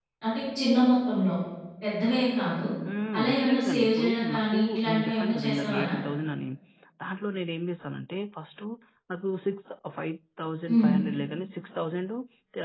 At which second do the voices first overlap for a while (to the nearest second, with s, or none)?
3 s